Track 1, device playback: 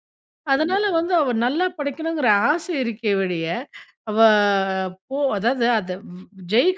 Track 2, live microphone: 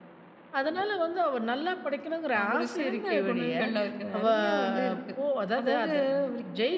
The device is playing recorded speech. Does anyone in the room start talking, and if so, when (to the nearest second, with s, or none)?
2 s